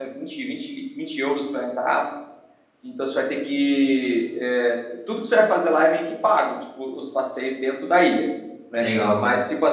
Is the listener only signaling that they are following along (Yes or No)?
Yes